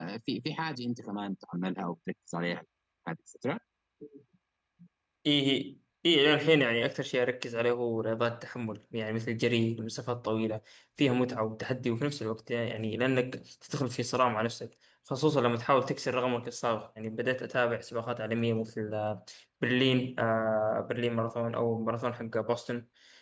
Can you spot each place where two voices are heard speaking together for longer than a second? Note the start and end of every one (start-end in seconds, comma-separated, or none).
none